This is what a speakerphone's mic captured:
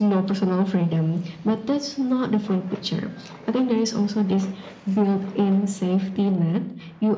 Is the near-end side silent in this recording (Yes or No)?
Yes